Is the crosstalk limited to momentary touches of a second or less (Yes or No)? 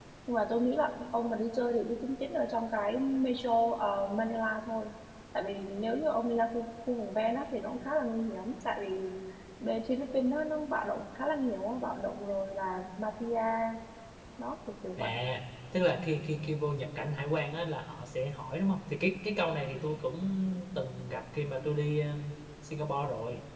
Yes